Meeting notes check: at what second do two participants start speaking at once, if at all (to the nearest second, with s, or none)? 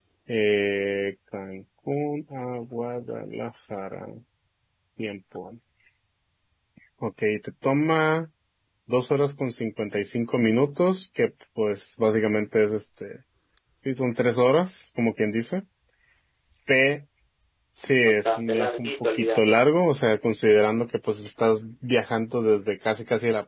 18 s